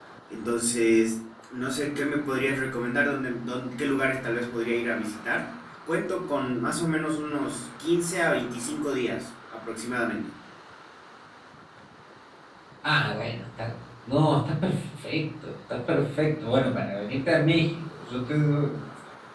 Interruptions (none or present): none